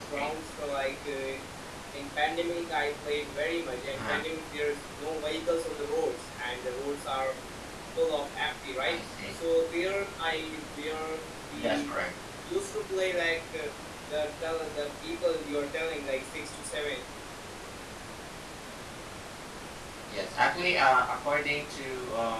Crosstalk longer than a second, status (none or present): none